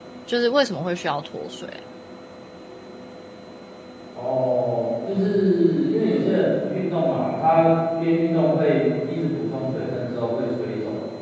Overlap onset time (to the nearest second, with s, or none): none